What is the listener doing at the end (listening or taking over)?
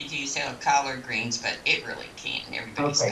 taking over